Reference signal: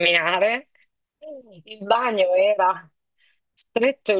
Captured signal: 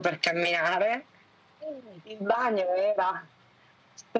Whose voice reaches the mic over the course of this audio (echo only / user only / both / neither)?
echo only